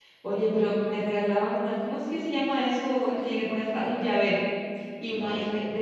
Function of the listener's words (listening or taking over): listening